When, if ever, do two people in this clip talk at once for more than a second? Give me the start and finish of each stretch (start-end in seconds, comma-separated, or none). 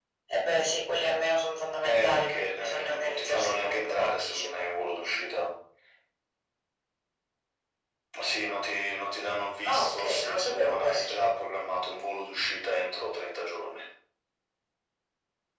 1.8-4.6, 9.6-11.2